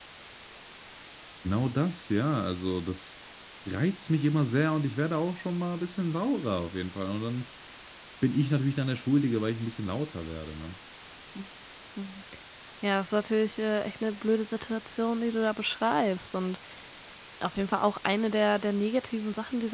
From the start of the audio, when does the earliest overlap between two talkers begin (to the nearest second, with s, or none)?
none